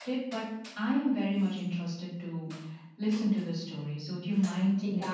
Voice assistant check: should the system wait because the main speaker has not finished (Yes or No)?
No